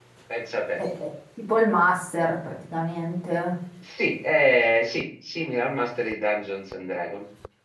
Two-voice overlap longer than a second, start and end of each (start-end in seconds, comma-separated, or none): none